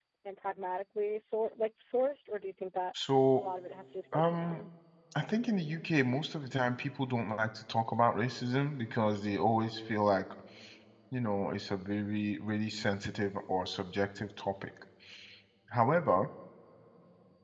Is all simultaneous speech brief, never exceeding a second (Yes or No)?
Yes